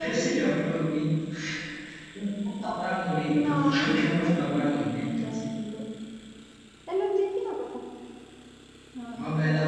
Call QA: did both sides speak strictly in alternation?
No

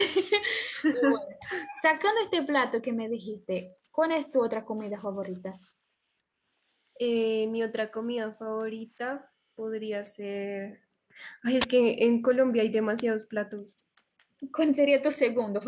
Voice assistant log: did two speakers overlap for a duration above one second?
No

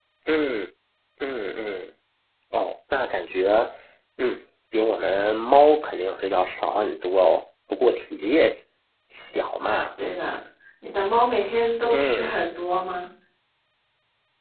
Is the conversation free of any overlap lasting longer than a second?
Yes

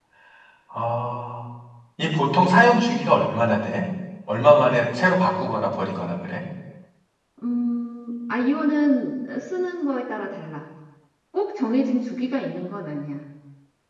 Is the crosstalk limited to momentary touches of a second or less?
Yes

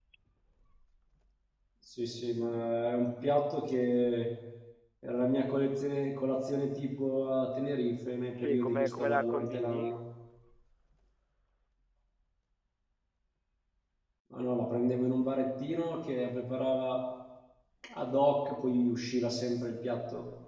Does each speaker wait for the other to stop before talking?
No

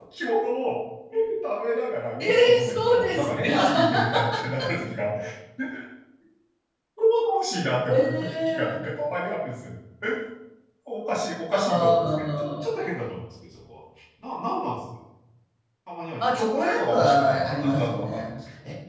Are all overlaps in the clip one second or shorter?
No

